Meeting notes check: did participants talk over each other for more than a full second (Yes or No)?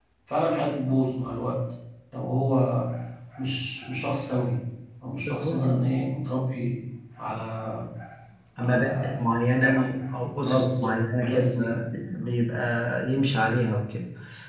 Yes